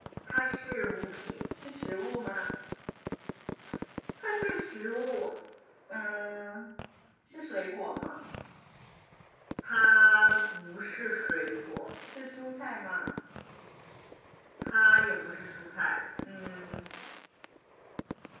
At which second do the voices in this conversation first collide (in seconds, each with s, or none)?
none